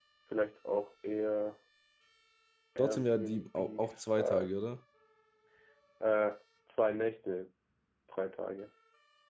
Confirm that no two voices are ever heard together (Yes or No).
No